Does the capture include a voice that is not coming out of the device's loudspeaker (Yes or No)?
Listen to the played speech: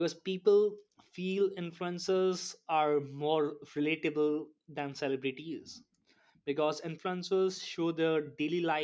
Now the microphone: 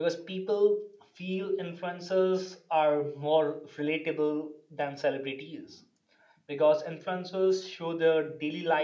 No